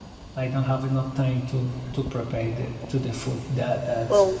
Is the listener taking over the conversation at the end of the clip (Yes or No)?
Yes